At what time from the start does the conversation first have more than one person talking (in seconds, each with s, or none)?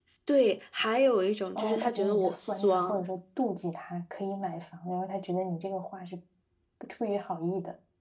1.6 s